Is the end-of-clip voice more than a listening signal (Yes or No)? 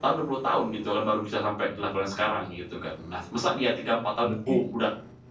No